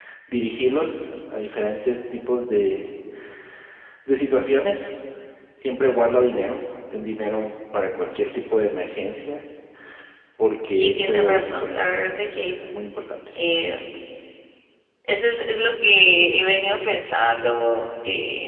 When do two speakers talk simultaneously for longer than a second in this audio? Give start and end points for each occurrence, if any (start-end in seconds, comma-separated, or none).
10.7-12.0